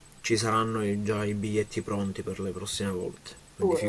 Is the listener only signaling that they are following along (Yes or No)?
No